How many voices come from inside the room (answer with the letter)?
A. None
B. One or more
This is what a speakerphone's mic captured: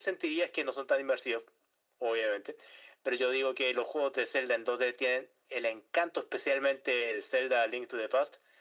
A